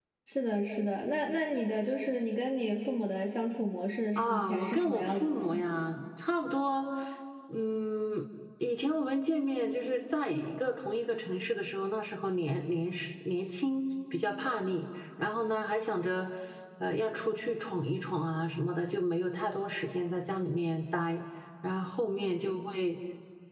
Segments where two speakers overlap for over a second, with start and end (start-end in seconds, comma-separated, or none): 4.2-5.6